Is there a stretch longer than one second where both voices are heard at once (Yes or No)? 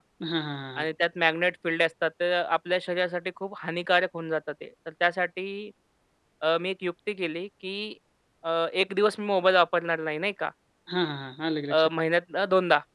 No